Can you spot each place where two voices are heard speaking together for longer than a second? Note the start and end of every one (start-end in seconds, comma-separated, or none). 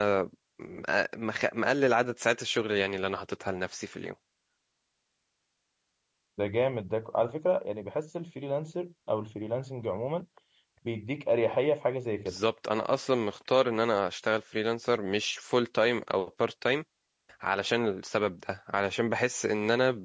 none